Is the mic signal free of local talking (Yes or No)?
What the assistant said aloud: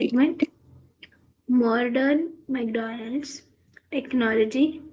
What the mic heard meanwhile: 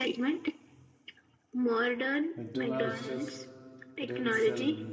No